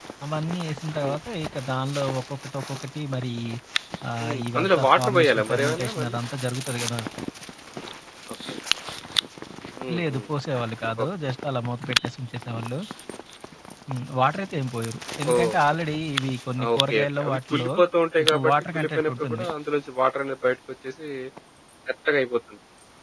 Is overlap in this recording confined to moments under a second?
No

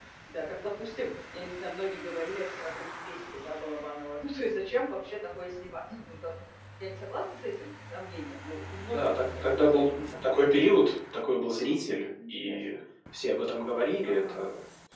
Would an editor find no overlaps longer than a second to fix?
No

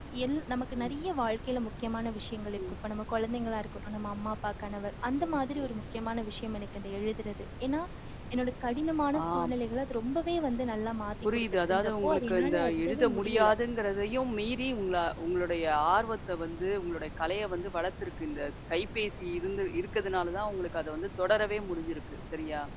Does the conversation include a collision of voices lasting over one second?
Yes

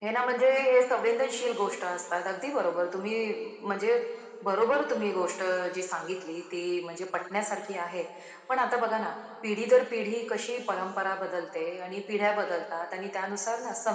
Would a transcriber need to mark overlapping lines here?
No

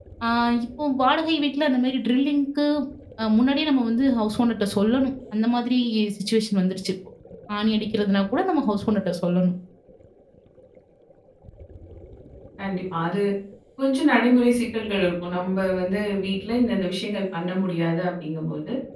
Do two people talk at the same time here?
No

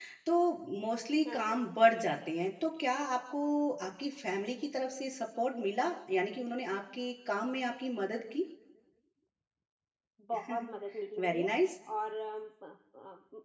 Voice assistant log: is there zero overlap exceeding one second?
Yes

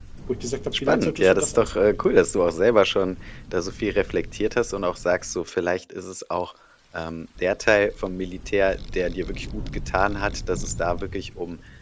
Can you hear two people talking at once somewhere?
Yes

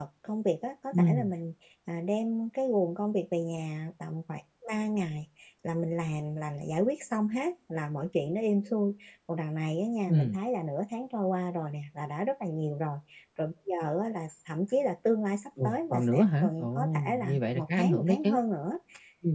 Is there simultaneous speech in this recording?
Yes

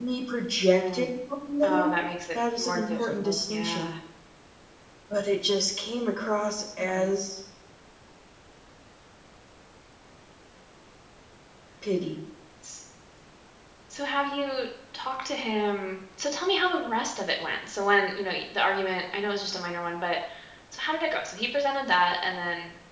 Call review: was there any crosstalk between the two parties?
Yes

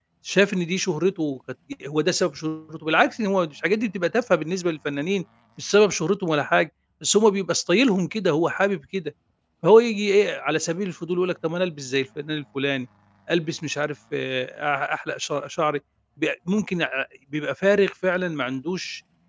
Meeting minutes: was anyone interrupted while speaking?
No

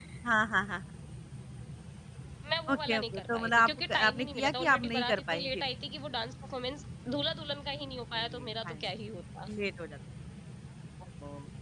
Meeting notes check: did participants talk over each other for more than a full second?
Yes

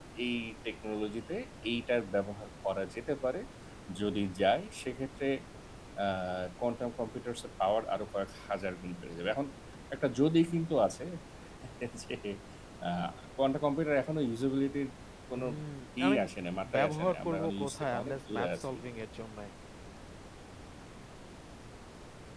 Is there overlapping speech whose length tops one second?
Yes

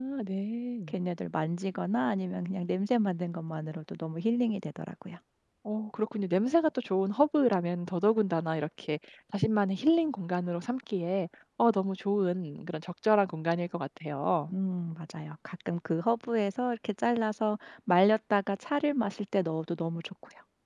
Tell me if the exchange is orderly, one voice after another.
Yes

